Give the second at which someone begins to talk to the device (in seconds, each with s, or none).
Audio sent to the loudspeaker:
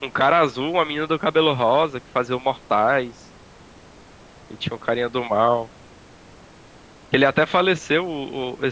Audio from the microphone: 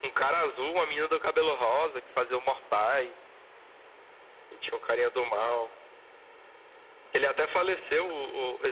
none